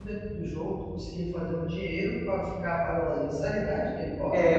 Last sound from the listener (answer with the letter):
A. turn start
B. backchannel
A